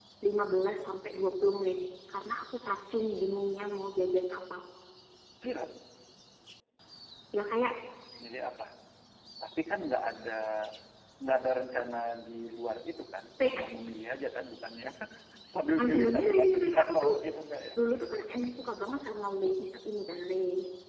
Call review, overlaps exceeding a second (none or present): present